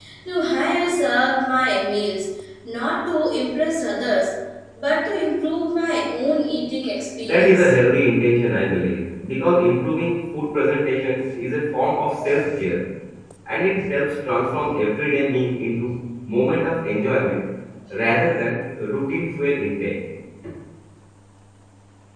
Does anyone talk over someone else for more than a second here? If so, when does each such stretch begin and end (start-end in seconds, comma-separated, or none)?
none